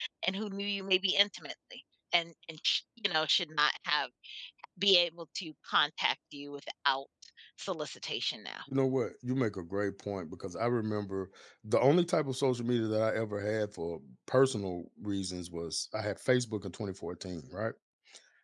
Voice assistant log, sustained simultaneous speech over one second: none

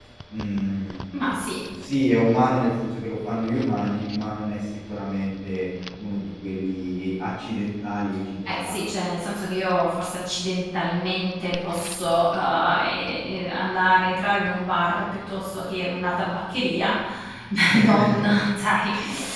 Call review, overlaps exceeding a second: none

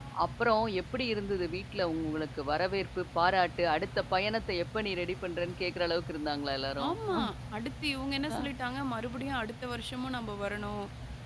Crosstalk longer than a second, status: none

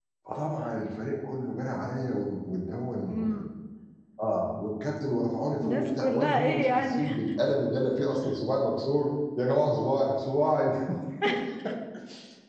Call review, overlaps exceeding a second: present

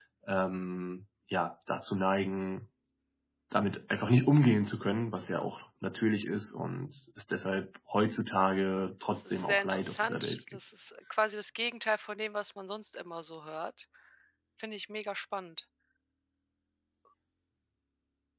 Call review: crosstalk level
present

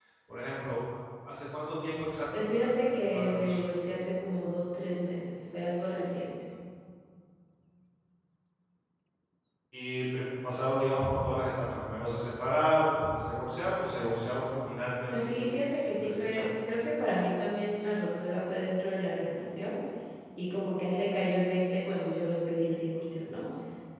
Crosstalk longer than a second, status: present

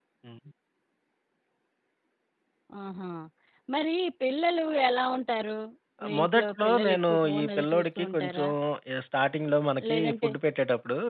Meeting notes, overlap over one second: present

